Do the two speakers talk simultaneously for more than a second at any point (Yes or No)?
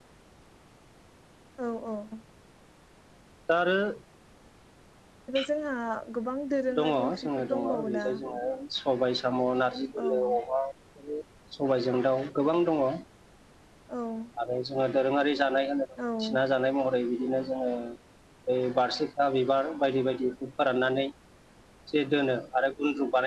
Yes